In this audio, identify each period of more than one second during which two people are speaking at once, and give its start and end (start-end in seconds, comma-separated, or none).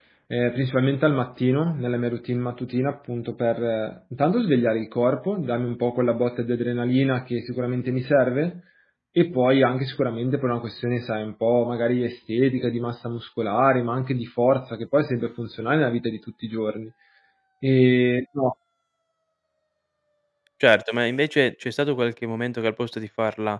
none